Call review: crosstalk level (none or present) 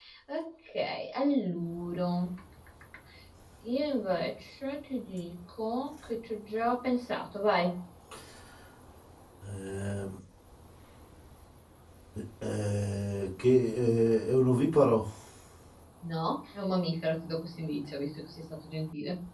none